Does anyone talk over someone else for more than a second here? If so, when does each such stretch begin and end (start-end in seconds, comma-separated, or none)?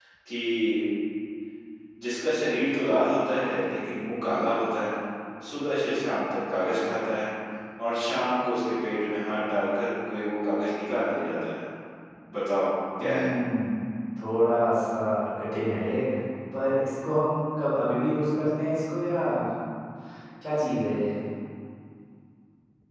none